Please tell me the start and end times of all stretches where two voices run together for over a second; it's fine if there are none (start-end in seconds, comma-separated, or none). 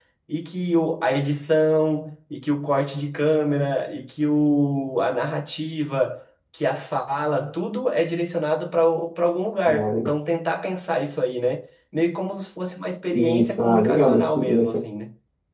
13.1-14.8